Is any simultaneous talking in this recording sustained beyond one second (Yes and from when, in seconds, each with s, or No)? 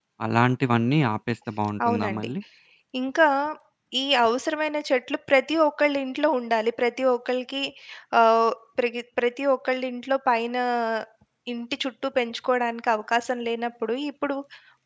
No